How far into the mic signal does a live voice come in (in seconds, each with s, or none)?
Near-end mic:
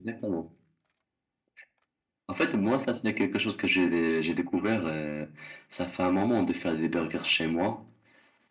none